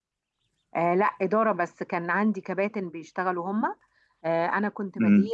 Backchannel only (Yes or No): Yes